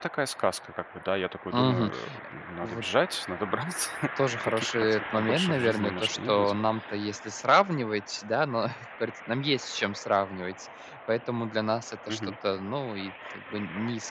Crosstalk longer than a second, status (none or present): present